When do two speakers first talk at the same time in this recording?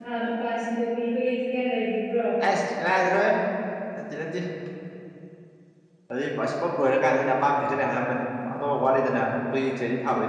none

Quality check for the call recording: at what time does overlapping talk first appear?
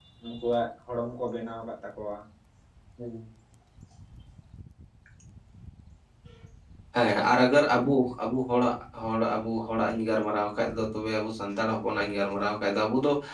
none

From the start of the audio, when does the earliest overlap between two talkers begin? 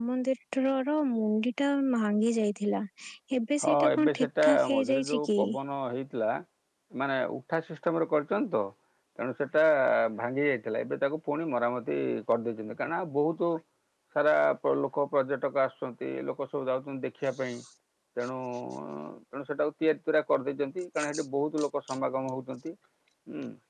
3.6 s

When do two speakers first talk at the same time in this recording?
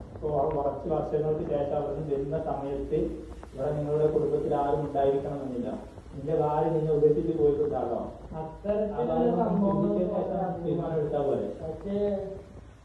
9.0 s

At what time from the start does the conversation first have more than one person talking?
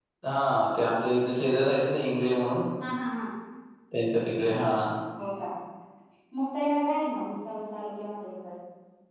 none

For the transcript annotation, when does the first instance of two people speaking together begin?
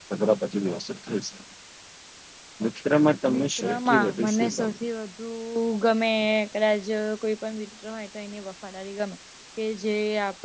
3.3 s

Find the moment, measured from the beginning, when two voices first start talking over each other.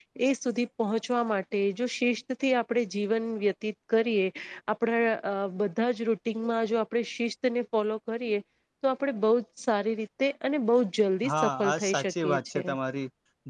11.2 s

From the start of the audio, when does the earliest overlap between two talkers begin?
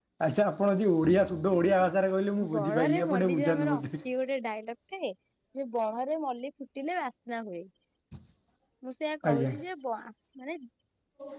2.5 s

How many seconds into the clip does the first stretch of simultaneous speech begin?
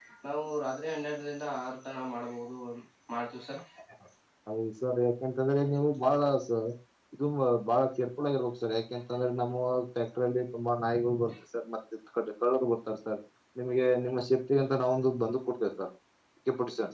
none

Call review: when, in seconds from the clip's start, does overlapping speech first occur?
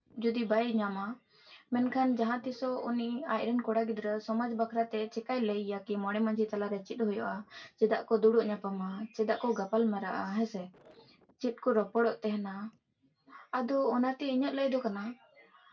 none

